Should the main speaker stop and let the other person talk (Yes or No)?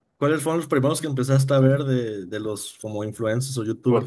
Yes